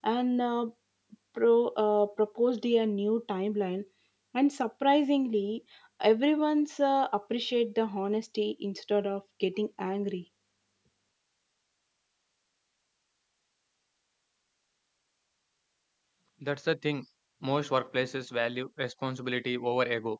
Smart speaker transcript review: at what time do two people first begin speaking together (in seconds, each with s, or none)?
none